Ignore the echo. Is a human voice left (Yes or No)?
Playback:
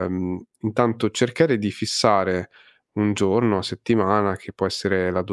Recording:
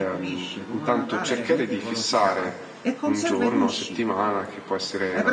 Yes